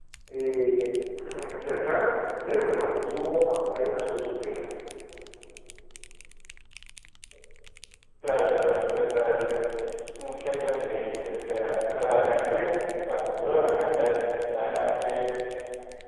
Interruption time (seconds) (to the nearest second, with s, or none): none